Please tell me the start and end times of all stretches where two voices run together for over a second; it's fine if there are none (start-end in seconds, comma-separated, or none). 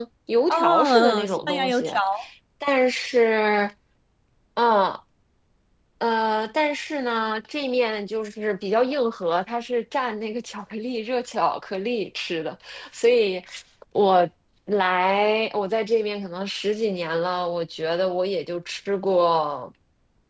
0.5-1.9